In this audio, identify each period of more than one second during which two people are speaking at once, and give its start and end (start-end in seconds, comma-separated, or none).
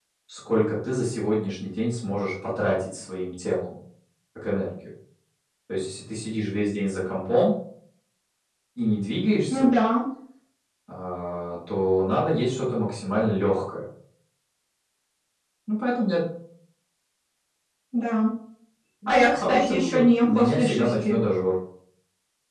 19.1-21.2